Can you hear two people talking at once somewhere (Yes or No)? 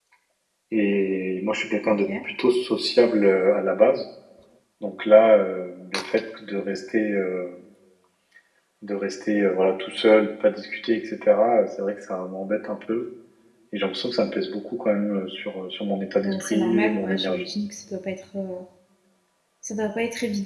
Yes